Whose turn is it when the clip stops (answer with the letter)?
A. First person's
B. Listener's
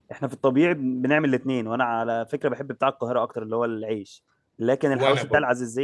A